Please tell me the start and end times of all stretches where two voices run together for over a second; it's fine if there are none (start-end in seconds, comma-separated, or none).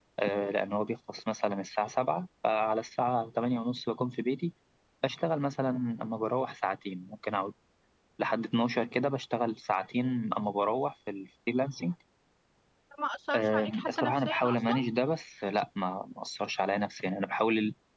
13.3-14.7